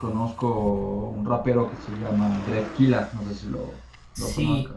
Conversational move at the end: taking over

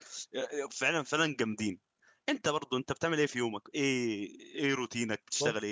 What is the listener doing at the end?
taking over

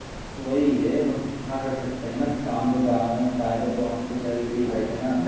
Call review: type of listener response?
taking over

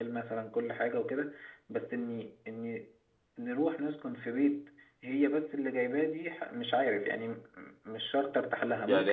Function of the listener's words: taking over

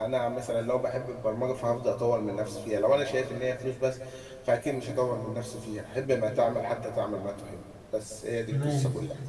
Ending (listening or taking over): taking over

